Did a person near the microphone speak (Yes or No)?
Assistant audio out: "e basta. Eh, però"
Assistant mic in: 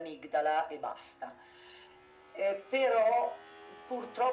No